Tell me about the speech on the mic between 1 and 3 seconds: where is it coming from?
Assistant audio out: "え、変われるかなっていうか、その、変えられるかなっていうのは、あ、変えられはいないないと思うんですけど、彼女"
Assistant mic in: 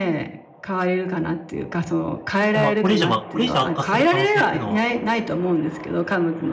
both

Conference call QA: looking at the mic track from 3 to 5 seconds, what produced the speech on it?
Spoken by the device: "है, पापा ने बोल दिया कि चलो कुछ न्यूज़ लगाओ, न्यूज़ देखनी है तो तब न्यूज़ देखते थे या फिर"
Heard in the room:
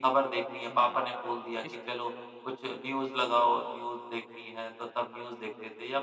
echo only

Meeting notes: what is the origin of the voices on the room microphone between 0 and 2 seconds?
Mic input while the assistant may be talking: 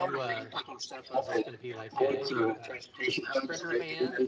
both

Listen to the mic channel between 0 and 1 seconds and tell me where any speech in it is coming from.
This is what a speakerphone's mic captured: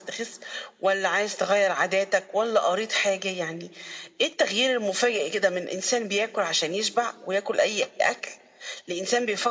echo only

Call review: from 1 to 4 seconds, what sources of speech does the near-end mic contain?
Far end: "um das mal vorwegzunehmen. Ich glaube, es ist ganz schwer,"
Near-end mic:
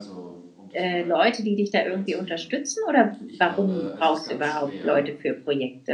both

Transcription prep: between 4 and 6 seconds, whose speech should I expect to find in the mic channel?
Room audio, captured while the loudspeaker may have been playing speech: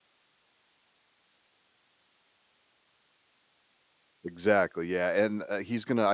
user only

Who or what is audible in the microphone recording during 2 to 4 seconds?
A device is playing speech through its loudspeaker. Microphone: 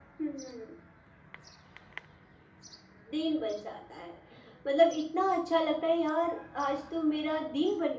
echo only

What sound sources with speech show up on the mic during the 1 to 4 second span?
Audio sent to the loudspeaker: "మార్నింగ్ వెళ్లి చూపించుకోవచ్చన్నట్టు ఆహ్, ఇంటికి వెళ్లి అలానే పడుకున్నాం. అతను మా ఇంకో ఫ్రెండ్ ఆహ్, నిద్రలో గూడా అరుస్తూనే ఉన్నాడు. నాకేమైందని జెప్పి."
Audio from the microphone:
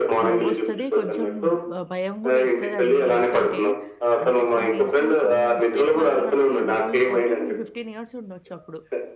both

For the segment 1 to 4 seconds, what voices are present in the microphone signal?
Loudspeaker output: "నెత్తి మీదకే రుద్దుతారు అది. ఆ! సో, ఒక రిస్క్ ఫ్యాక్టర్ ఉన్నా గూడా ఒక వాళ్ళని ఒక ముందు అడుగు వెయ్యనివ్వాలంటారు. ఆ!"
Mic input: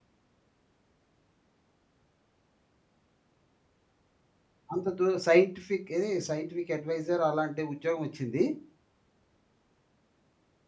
neither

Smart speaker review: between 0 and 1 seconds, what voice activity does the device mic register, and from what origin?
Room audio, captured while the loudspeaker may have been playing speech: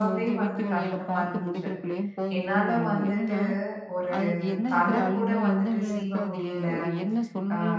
both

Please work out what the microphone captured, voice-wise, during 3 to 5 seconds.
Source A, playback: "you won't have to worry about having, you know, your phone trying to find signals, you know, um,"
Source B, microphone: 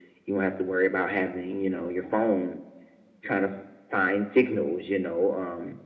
echo only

